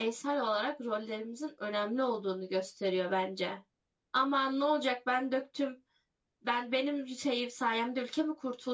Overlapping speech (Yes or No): No